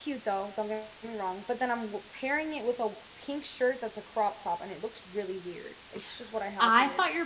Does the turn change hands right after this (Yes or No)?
Yes